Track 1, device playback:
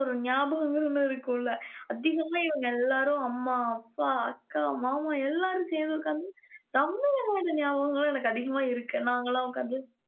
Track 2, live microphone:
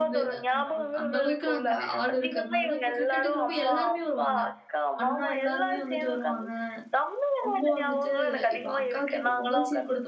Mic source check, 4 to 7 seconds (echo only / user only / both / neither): both